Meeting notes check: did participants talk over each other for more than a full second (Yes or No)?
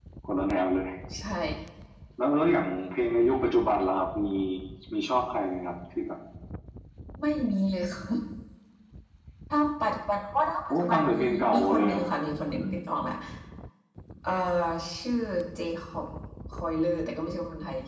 Yes